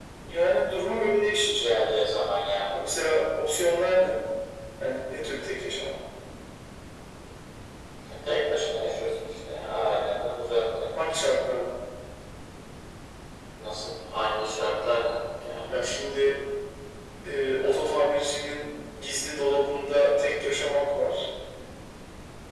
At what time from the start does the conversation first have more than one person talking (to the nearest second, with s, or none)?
none